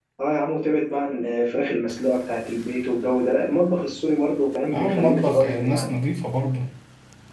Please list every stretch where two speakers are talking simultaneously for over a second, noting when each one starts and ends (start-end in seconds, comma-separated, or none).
4.7-5.9